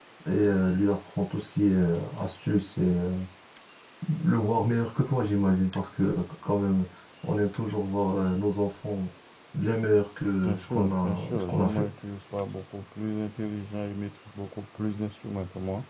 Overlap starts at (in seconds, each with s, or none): 10.4 s